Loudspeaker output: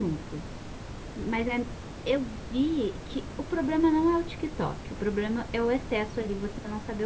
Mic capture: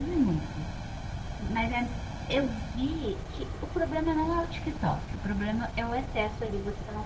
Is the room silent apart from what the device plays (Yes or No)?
Yes